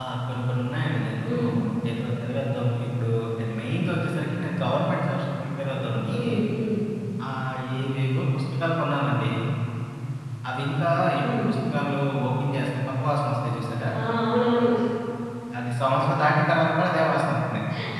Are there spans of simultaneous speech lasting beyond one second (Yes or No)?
No